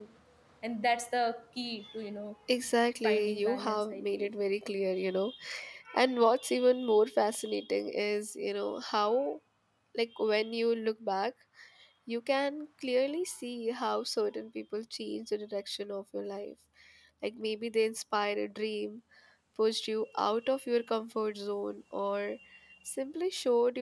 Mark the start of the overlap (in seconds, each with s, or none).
3.0 s